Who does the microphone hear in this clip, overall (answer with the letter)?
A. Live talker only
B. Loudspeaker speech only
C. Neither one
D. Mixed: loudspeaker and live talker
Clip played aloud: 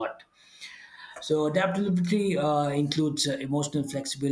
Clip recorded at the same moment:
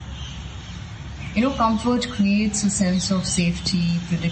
A